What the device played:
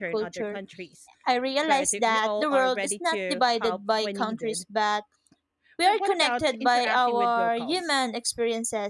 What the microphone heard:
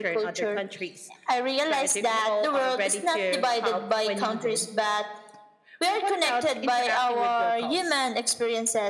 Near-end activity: none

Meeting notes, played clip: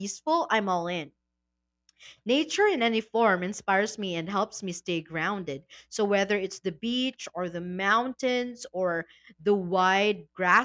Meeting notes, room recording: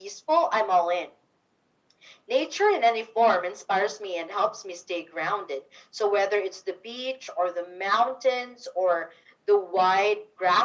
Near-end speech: none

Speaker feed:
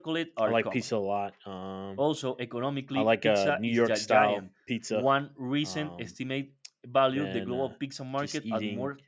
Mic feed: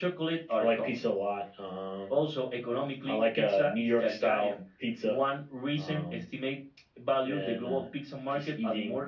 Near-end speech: none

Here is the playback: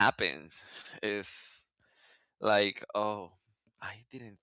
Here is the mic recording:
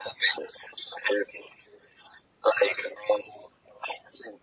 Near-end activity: none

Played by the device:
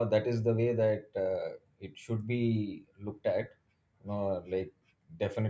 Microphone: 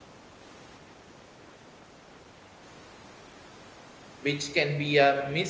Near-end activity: present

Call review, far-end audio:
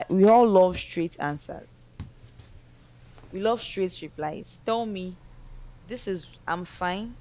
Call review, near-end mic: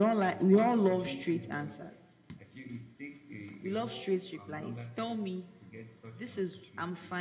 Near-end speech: present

